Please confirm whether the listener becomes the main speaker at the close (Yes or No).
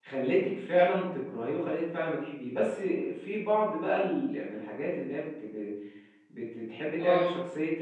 No